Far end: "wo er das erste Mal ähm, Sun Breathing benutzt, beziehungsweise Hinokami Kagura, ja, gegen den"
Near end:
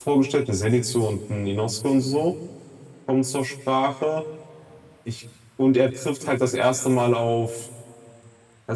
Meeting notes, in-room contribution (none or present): present